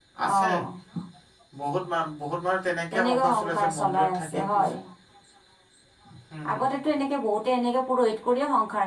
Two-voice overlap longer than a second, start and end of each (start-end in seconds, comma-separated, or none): 2.9-4.5